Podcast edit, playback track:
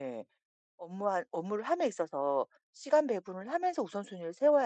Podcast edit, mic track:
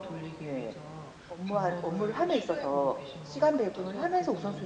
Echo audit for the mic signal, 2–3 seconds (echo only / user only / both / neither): both